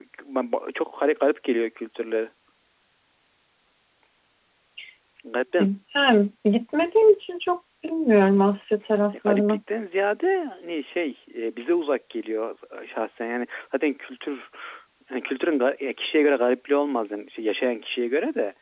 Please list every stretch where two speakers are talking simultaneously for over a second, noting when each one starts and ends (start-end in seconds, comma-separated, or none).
none